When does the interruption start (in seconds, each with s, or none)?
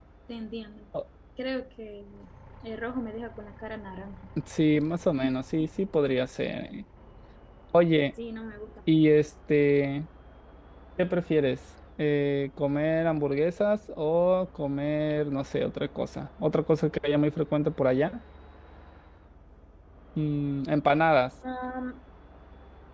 none